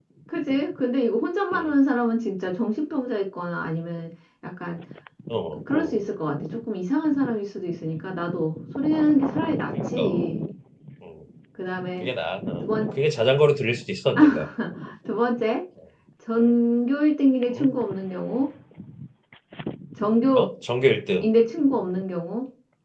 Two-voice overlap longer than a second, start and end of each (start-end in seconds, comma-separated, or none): none